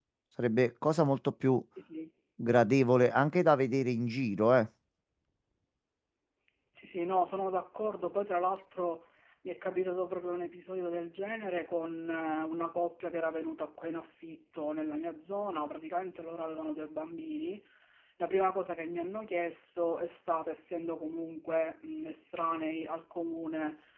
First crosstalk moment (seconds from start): none

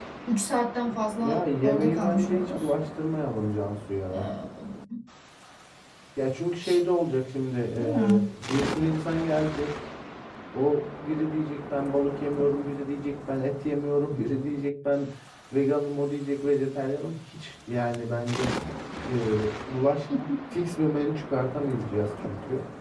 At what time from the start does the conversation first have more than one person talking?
1.2 s

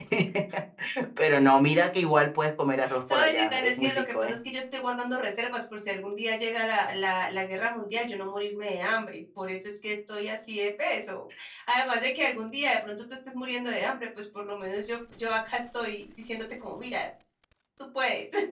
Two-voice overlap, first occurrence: 3.1 s

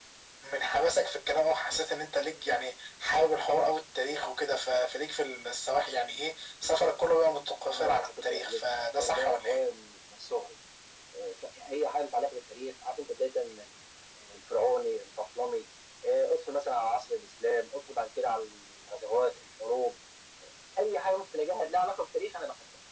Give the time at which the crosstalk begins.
7.7 s

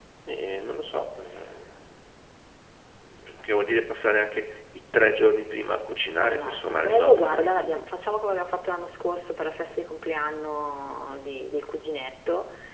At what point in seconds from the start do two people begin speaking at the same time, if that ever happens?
6.1 s

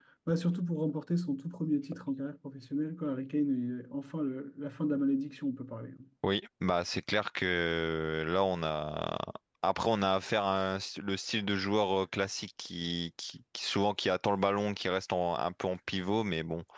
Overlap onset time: none

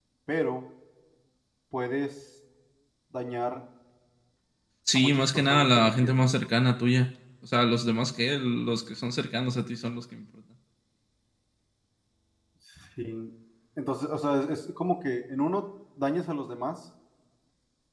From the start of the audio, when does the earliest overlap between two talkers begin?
5.0 s

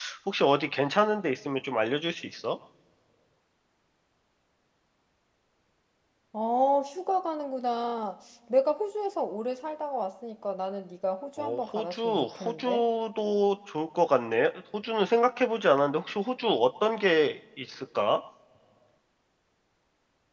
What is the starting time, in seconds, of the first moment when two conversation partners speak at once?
11.4 s

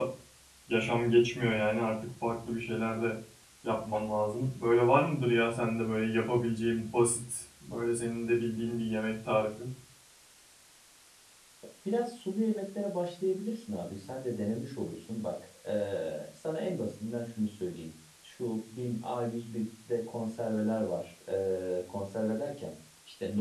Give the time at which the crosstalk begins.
none

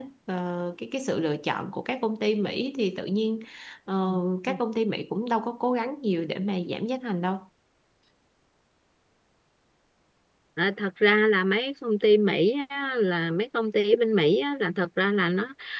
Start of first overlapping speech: none

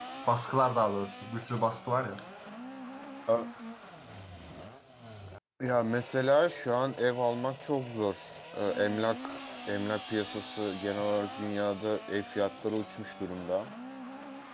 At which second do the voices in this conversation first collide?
none

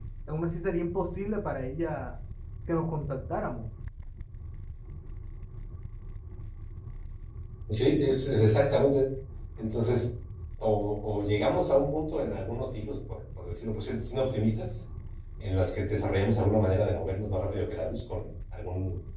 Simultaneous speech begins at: none

